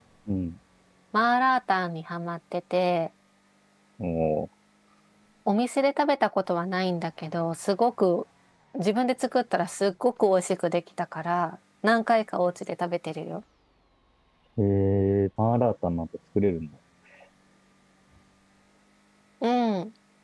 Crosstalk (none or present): none